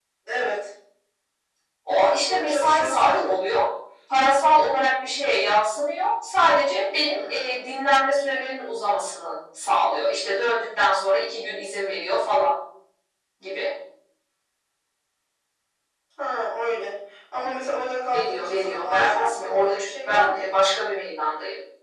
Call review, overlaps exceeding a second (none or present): present